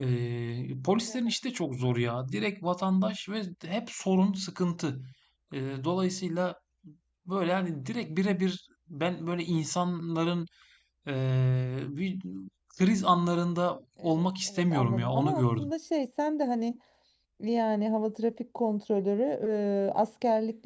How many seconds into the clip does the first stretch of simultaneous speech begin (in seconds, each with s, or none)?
14.0 s